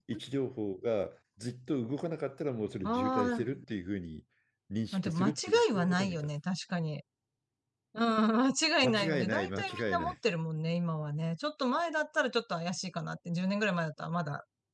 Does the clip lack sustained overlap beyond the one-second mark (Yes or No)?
No